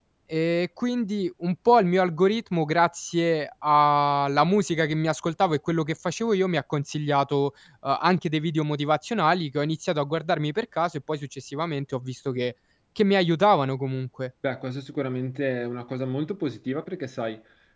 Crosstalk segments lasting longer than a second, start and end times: none

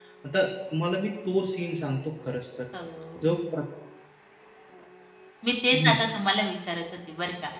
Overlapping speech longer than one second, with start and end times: none

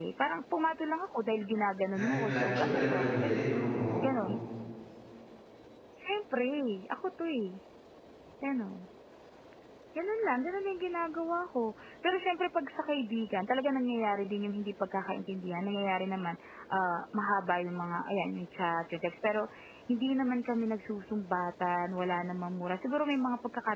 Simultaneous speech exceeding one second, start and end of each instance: 2.0-3.4

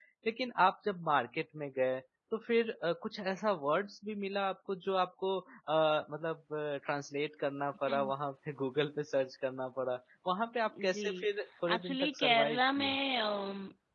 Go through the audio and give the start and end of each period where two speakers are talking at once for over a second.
11.7-12.9

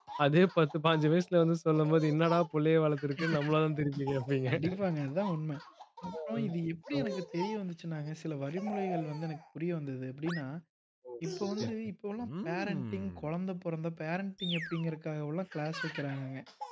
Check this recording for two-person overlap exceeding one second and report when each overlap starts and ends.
none

